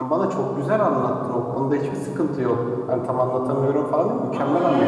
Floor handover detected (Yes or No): Yes